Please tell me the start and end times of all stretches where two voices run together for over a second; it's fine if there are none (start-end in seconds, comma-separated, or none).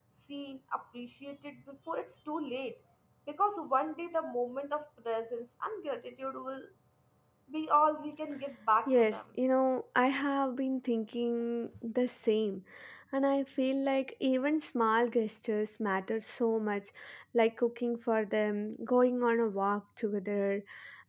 none